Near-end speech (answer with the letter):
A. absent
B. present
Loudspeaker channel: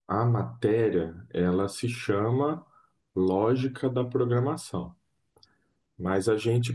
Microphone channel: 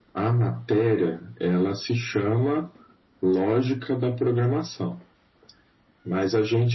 A